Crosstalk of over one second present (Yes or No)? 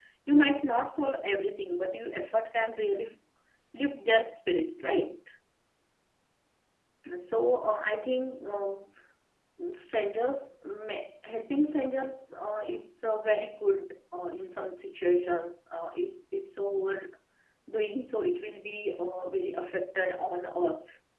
No